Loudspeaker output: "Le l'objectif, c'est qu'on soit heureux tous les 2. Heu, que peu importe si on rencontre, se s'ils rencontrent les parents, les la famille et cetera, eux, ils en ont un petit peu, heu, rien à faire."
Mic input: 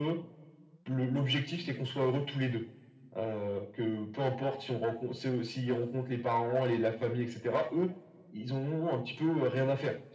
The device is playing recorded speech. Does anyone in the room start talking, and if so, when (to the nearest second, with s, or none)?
none